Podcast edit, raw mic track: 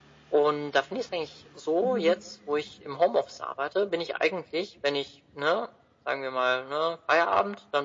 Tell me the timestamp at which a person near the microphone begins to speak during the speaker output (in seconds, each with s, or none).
1.8 s